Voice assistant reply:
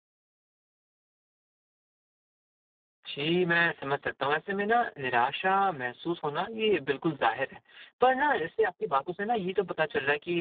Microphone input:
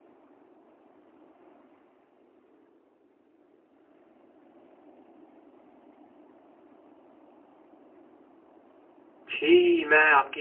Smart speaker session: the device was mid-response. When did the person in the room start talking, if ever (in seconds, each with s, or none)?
9.3 s